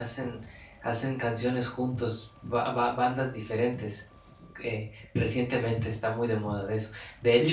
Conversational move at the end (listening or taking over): listening